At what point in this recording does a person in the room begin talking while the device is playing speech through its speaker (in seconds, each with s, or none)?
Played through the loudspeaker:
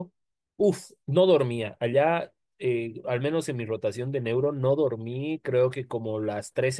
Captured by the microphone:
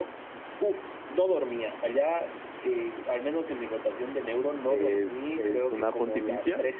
4.6 s